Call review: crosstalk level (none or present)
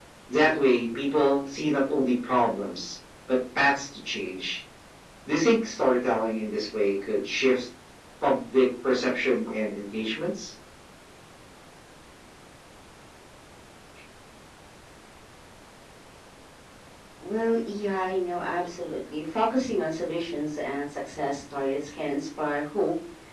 none